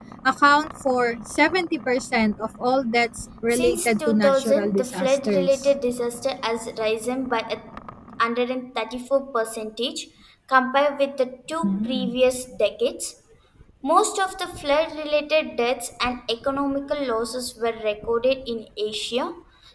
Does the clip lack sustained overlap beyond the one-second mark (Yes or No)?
No